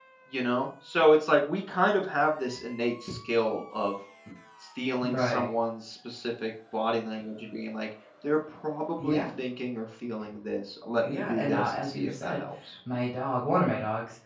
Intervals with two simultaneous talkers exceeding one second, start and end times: 11.0-12.4

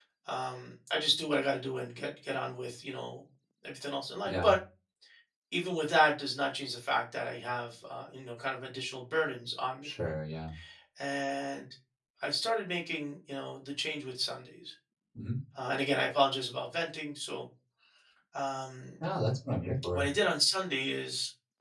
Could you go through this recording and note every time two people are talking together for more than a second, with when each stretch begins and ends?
none

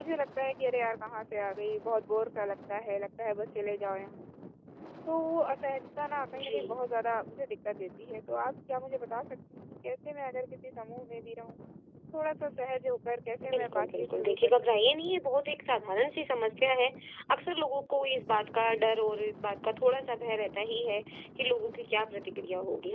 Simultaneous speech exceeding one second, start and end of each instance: 13.5-15.0

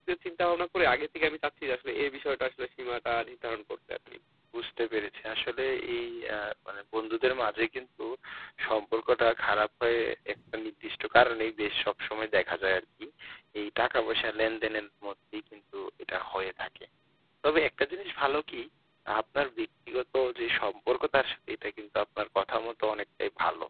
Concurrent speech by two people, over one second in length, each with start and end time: none

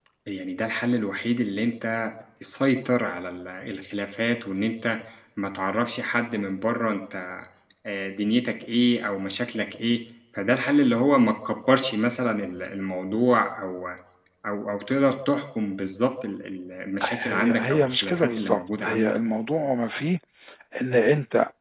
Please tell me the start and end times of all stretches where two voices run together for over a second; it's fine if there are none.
17.0-19.1

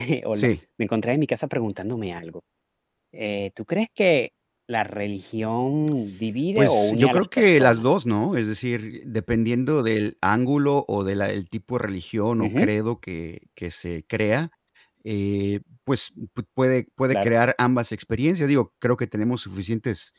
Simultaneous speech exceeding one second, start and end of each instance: 6.5-7.8

